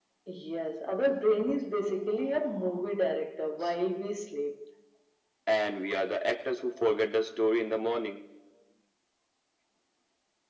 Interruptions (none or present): none